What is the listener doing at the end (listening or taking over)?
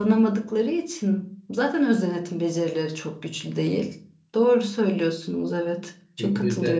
taking over